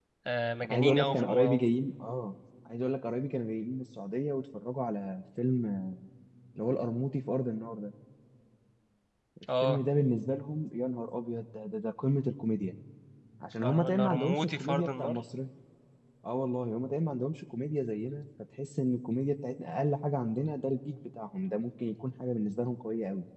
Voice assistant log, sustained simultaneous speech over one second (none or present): present